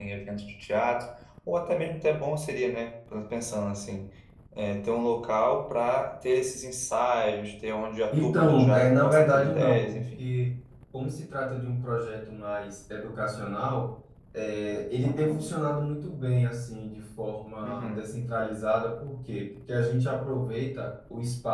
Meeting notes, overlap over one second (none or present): present